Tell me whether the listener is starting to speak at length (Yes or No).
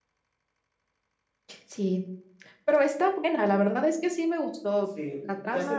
Yes